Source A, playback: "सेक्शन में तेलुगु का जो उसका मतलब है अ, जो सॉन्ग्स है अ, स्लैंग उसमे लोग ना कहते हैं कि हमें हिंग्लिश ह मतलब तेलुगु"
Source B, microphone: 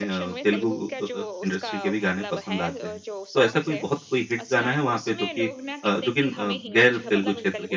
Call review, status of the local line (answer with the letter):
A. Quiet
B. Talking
B